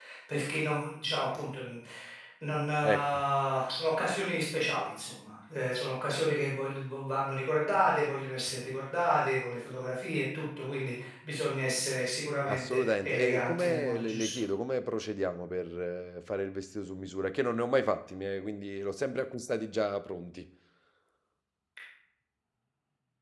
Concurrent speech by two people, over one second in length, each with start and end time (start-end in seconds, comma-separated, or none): 12.5-14.4